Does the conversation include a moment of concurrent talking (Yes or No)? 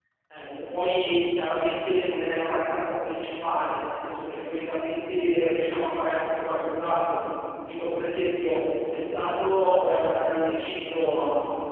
No